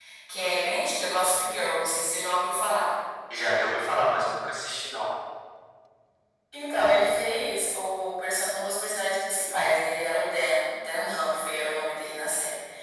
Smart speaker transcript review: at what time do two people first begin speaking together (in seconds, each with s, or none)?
none